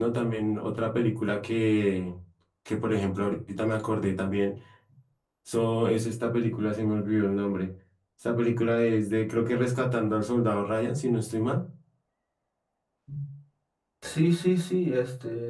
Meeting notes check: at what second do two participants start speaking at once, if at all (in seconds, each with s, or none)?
none